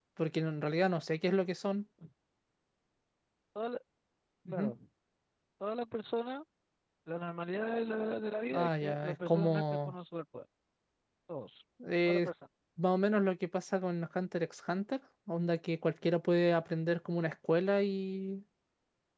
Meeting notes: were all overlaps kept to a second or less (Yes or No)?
No